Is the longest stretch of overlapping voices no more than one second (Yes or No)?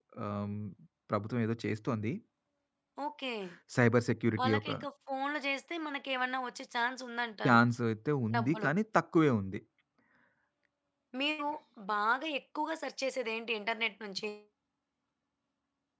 Yes